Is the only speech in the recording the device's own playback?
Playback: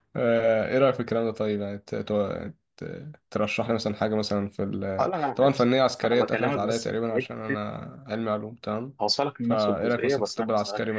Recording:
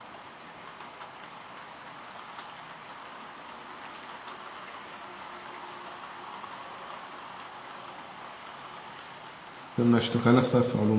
No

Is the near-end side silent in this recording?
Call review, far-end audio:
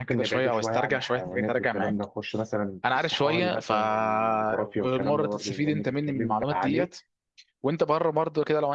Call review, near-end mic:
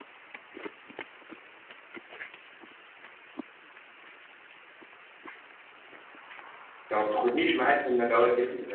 No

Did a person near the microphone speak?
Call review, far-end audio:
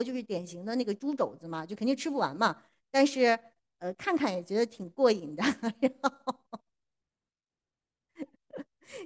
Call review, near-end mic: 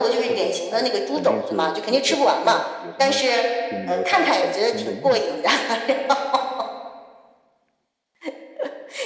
Yes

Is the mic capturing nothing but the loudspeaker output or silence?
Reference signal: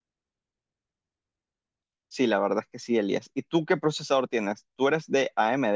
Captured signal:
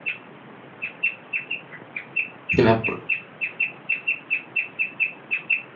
No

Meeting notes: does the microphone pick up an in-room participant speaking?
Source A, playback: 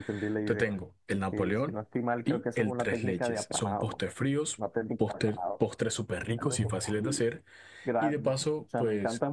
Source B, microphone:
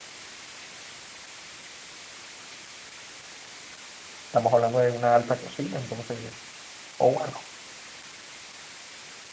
Yes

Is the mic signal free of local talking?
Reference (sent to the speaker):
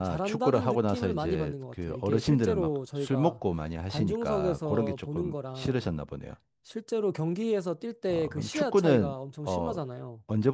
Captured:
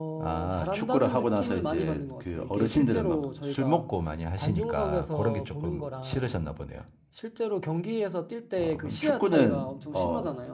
Yes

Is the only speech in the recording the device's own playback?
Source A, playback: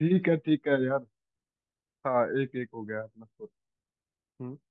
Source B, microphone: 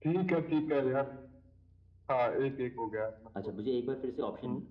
No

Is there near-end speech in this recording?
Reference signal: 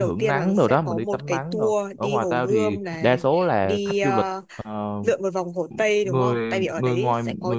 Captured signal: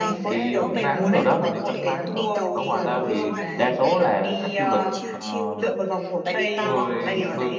Yes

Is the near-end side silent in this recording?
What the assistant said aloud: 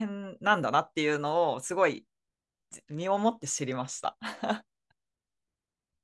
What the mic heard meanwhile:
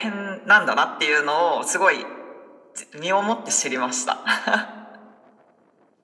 Yes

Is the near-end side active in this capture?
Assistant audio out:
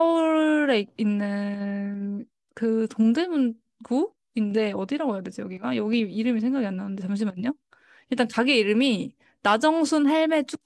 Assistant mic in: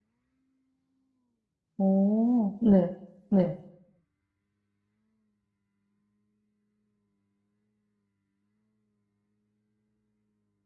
Yes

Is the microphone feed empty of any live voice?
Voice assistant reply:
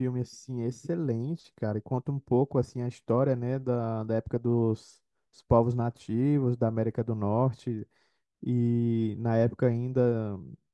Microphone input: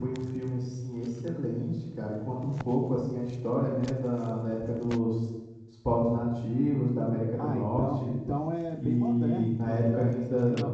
No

